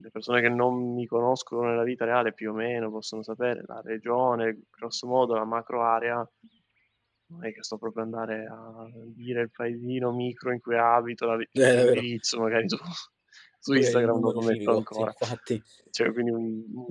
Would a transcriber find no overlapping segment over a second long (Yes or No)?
No